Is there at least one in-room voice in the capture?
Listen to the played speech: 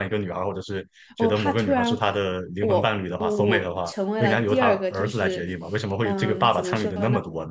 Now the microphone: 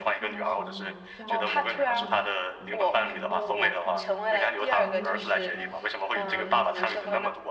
Yes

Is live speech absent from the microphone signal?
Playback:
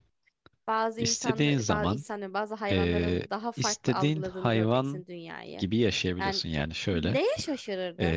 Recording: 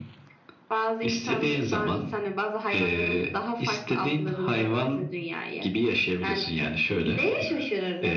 Yes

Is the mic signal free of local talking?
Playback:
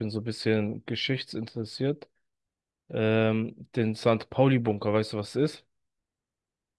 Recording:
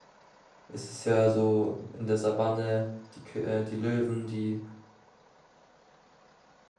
No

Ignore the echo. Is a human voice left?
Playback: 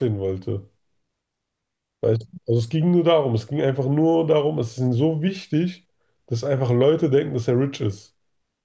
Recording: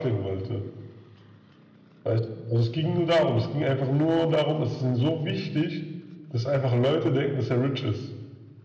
No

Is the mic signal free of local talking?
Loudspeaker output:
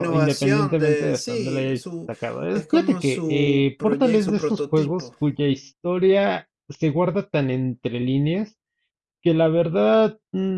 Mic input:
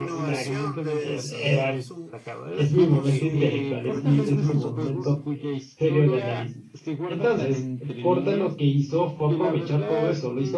No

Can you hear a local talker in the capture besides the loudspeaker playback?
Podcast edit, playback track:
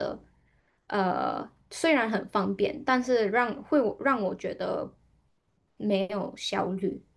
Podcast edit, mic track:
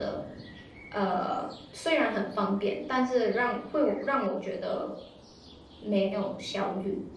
No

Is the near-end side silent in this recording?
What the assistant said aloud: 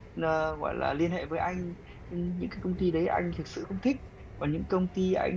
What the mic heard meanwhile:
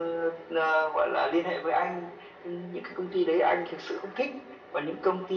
Yes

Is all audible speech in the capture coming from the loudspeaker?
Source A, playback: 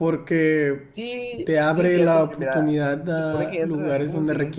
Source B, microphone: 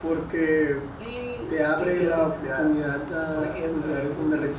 Yes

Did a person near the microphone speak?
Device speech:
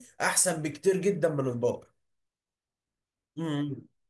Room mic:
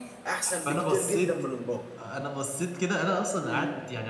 Yes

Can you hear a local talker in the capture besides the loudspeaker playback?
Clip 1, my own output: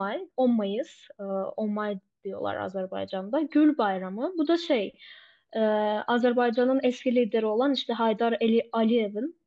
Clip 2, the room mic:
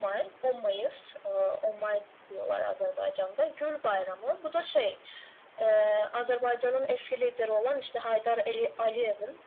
No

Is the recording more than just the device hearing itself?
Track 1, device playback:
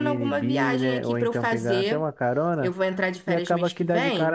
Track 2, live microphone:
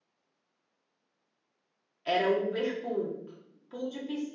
Yes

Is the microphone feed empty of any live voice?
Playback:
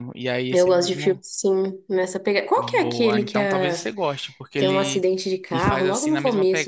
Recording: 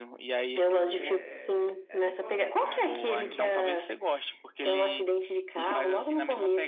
No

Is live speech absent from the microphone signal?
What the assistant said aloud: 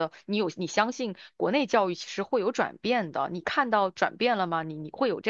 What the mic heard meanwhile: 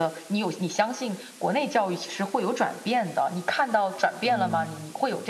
No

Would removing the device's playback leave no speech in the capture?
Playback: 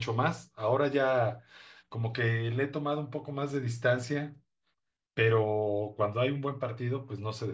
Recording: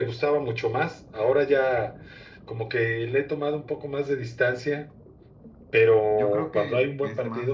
No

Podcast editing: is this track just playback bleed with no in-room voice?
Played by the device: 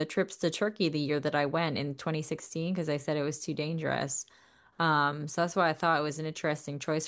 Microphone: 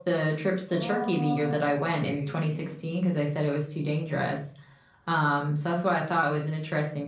No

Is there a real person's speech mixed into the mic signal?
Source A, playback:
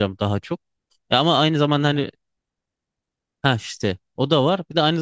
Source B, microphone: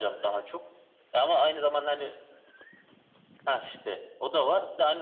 No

